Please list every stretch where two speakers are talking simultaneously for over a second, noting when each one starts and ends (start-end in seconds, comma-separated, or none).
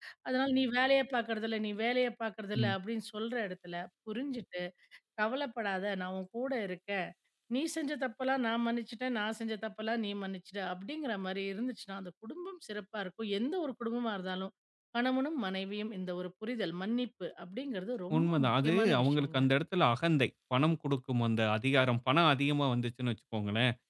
18.2-19.4